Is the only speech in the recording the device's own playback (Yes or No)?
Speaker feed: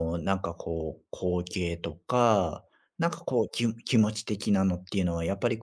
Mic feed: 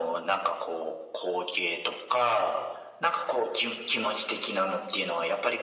Yes